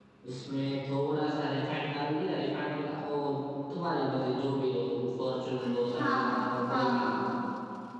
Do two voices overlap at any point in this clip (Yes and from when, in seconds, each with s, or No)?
Yes, from 5.6 s